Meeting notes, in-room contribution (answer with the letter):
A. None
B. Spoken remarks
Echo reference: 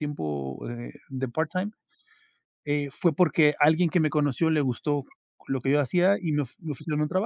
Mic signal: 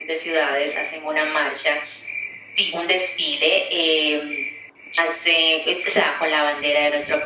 B